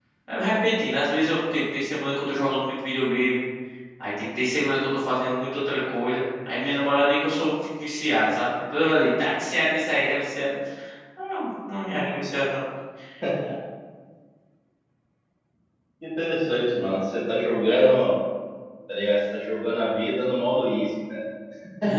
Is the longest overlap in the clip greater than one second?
No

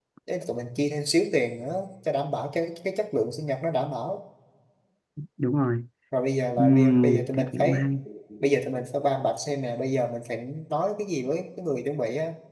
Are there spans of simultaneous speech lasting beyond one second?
Yes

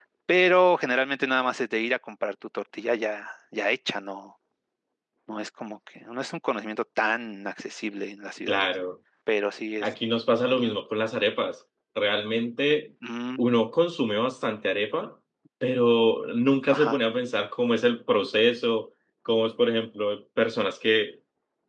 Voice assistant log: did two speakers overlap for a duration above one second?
No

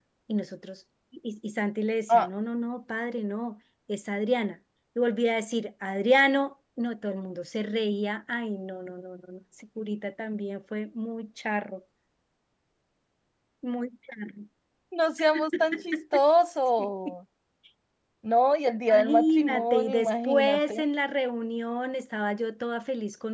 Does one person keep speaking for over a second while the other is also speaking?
Yes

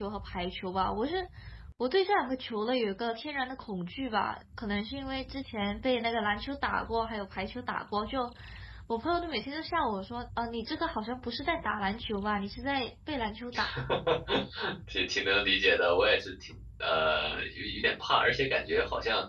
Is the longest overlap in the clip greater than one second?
No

